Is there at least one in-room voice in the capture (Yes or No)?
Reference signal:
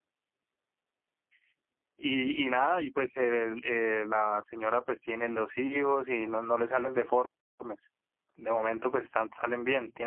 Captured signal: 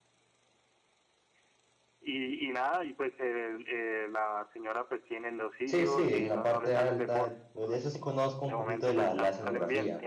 Yes